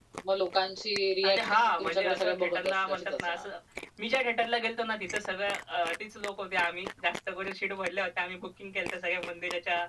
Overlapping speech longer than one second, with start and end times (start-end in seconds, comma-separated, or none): 1.2-3.4